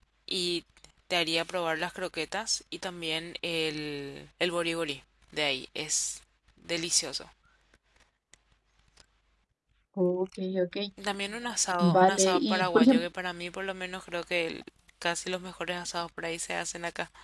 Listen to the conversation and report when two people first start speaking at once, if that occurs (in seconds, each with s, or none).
11.8 s